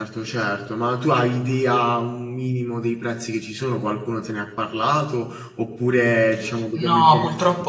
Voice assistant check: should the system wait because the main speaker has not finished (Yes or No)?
No